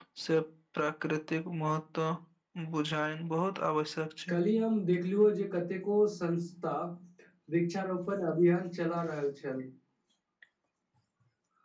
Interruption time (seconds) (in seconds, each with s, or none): none